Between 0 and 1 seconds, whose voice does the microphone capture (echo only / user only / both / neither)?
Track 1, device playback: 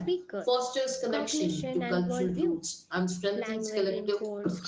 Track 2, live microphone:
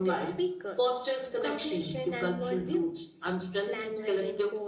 echo only